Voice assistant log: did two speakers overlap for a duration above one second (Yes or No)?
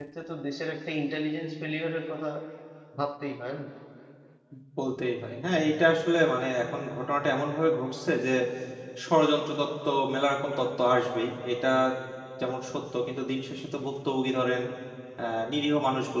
No